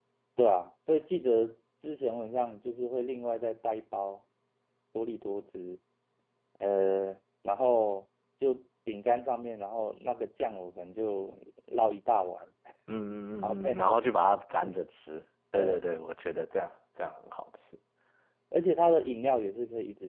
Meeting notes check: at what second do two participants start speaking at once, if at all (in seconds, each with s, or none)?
13.4 s